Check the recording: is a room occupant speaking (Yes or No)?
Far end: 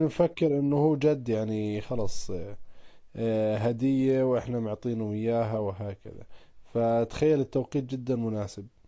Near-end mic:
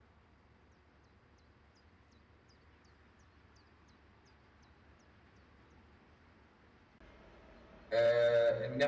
Yes